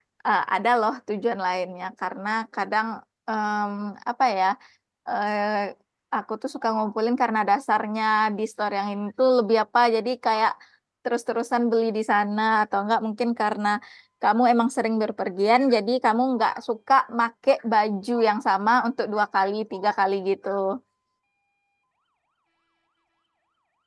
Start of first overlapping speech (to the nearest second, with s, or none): none